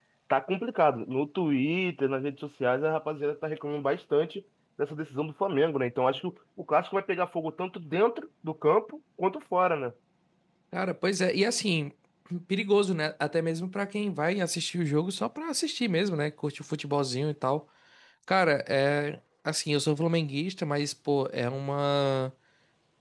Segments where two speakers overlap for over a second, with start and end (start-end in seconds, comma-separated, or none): none